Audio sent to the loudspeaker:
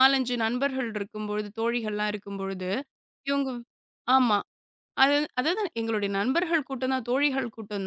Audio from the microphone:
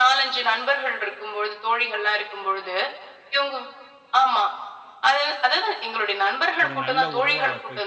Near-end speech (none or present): present